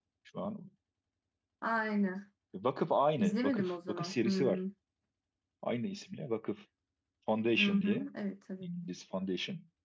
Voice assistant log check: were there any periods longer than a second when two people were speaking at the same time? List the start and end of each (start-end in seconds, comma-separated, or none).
3.2-4.6